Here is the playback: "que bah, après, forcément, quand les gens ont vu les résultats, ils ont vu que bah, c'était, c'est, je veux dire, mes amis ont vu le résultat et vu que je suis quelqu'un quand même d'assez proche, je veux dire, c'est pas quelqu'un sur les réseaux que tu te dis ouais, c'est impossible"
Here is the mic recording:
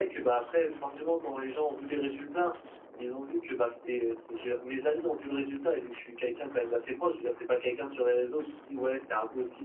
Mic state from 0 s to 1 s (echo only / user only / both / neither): echo only